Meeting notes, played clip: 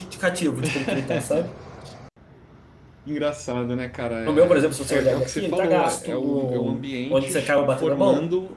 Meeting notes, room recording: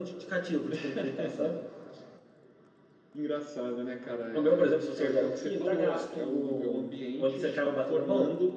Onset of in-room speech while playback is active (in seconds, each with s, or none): none